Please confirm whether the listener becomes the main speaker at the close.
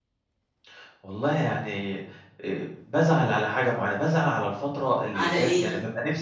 No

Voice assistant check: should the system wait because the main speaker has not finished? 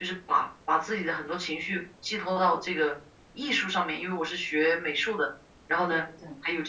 Yes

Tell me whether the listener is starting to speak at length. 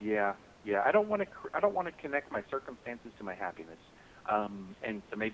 No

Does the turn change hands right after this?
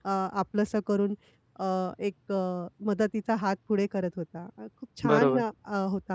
No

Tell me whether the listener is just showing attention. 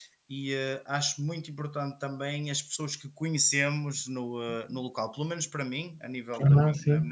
Yes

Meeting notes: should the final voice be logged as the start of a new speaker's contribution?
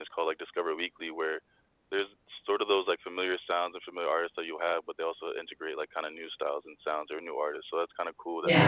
Yes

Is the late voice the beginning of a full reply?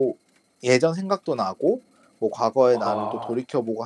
No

